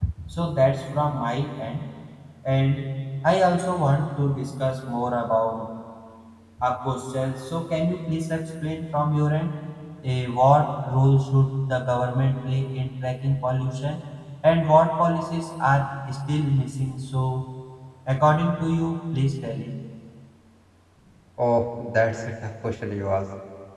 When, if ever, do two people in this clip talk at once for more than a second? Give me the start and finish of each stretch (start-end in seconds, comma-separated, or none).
none